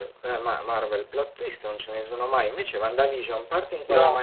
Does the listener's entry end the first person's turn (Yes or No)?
No